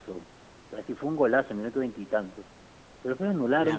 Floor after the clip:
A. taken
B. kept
B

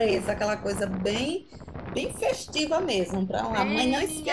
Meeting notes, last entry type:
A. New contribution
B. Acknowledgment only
A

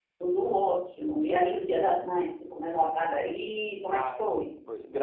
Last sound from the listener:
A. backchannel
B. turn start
B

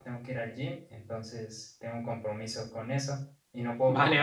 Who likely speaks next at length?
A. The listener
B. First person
A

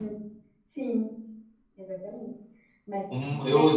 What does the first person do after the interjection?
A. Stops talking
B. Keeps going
A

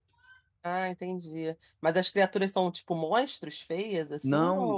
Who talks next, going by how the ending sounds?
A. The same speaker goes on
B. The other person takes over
B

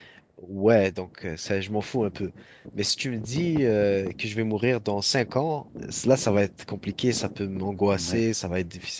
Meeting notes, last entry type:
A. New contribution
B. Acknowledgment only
B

